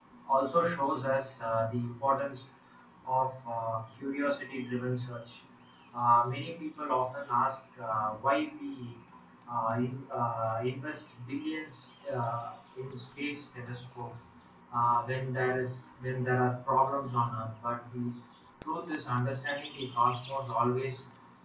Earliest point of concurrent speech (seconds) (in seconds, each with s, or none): none